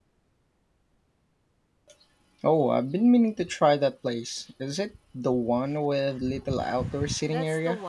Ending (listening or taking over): taking over